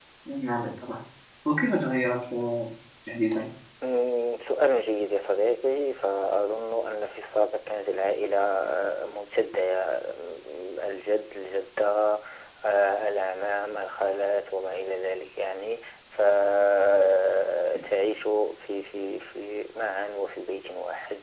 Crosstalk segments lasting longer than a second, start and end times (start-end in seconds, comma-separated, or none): none